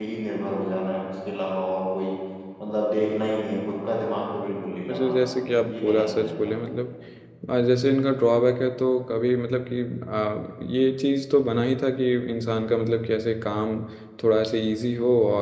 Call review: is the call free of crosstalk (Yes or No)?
No